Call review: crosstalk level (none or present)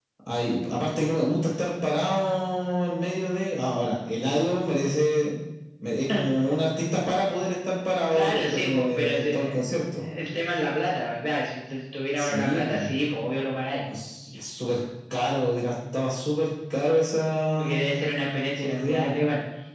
present